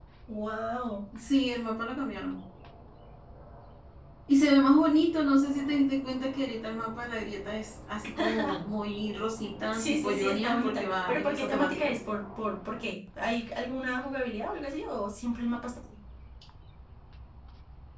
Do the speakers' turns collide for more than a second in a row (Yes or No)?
Yes